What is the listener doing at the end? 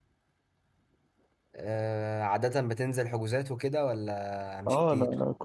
taking over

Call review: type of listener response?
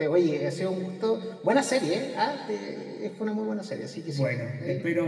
taking over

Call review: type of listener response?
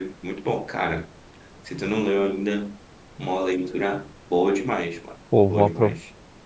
taking over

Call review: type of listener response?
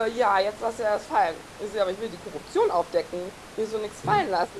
listening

